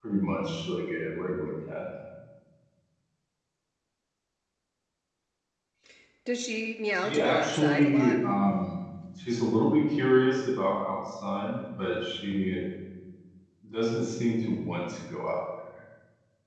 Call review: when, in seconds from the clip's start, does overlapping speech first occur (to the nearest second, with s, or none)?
7 s